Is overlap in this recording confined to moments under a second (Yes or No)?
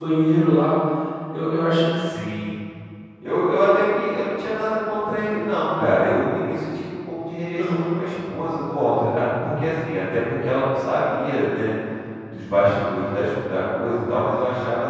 Yes